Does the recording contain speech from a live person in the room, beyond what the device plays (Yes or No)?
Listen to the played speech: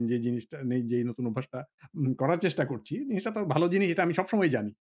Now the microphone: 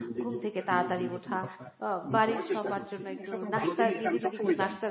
Yes